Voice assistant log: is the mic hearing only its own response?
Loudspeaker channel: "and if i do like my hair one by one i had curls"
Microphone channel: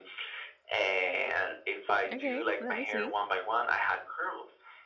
No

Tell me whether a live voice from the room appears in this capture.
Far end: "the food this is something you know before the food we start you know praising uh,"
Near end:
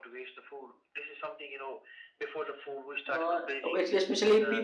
Yes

